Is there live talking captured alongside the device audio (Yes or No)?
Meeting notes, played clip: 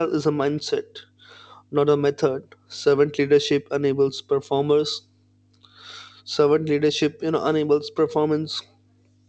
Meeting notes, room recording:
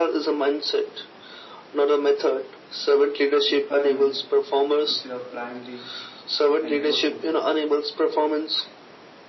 Yes